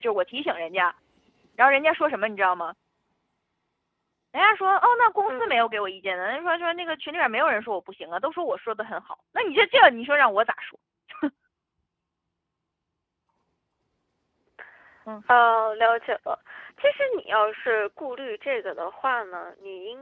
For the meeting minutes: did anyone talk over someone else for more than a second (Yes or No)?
No